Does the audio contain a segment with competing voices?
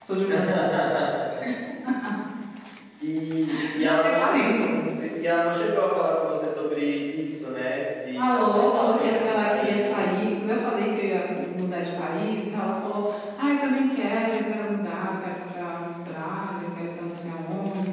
Yes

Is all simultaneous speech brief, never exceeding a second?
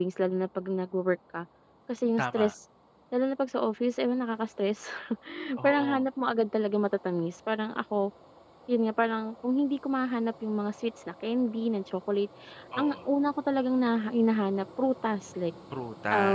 Yes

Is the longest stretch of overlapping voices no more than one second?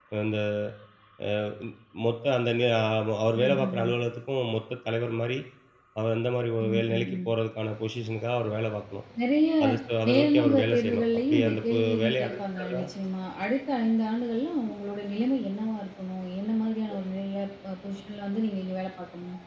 No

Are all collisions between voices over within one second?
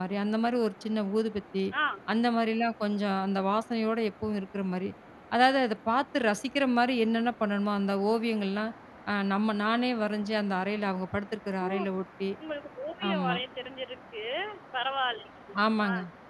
Yes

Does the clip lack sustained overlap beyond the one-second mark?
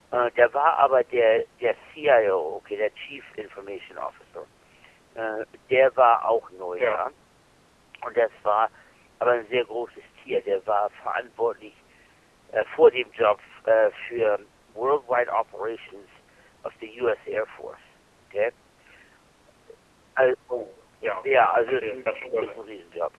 No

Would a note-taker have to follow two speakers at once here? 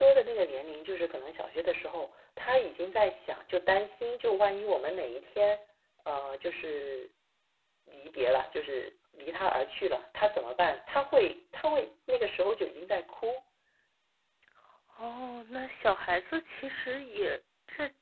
No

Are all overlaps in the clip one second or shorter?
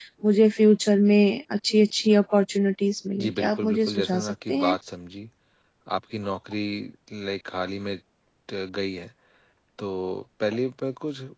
No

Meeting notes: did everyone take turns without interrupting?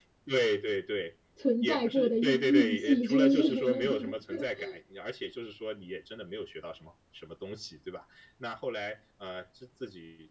No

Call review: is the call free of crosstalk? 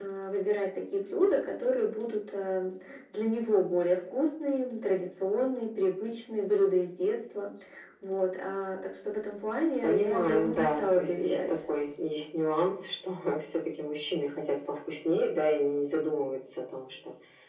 No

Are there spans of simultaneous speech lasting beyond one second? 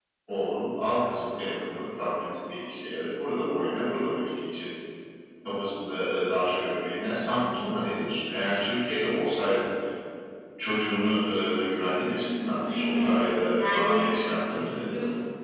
Yes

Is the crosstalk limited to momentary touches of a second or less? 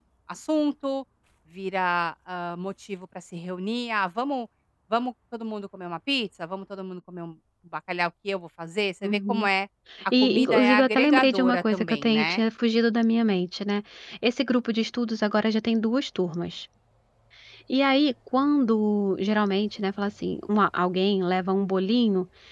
No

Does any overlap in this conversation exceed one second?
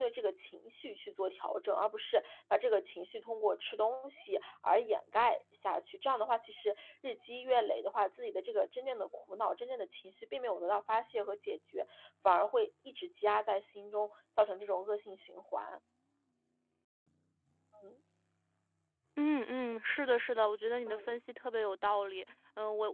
No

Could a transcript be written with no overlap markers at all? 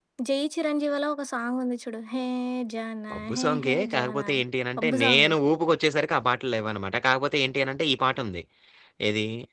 No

